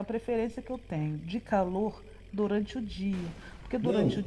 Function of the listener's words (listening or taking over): listening